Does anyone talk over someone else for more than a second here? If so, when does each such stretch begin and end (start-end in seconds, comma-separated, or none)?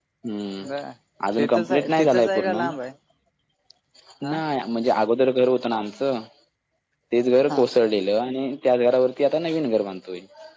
1.4-2.6